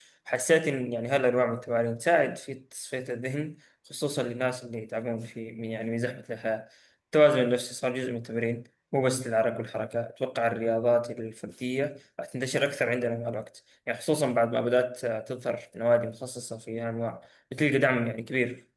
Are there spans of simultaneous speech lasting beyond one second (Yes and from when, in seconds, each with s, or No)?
No